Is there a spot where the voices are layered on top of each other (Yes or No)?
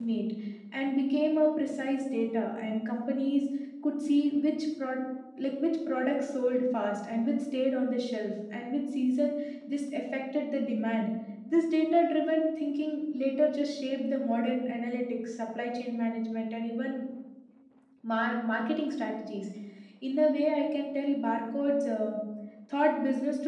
No